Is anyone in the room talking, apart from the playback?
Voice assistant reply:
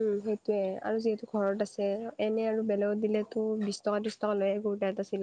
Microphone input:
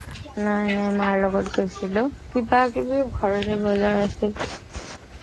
Yes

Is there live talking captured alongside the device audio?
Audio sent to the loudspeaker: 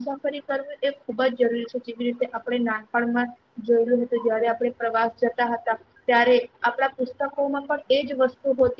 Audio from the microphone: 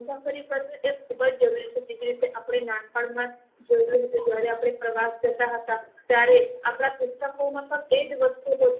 No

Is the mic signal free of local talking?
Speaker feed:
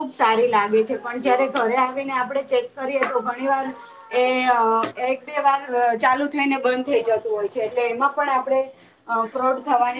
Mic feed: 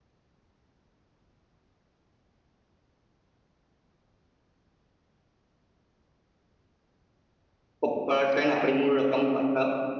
No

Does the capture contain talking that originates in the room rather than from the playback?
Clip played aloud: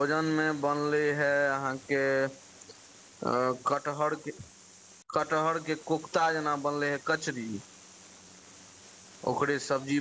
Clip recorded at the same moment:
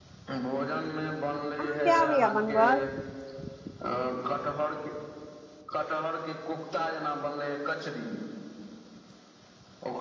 Yes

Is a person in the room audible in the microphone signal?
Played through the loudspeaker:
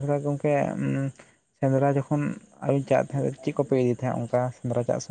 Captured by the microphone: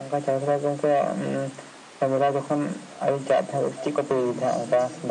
Yes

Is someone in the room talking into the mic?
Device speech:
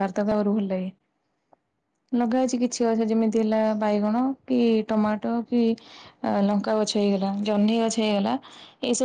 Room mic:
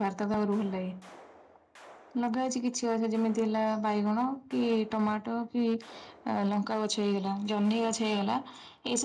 No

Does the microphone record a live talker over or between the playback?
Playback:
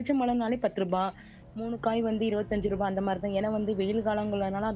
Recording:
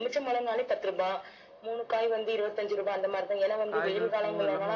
Yes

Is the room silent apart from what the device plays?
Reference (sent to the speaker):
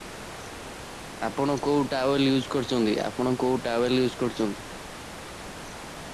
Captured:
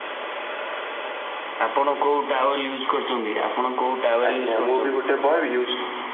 No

